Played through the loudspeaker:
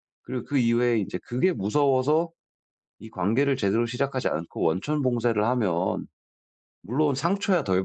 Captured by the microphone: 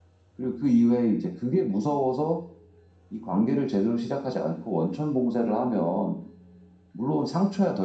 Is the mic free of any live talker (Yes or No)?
Yes